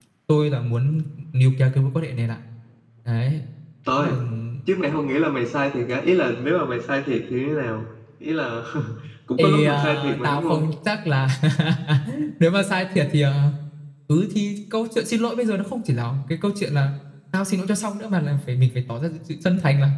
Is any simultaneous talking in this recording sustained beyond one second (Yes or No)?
Yes